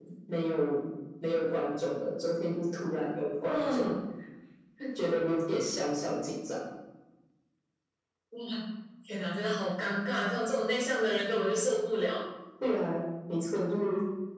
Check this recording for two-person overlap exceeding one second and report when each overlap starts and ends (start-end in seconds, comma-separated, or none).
none